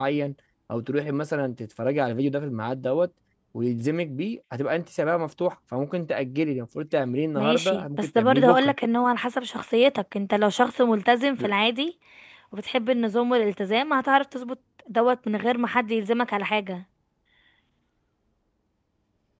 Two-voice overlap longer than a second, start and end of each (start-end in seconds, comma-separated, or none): 7.4-8.7